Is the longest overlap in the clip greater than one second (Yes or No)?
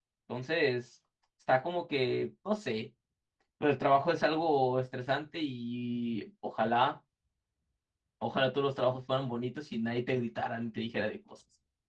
No